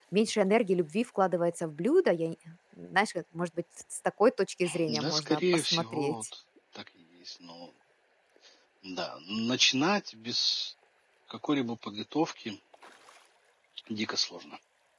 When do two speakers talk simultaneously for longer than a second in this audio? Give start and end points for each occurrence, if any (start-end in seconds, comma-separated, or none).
4.9-6.1